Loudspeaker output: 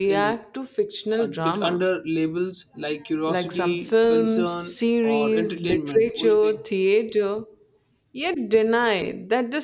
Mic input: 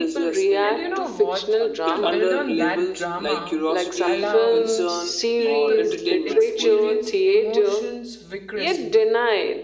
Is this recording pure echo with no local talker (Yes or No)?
No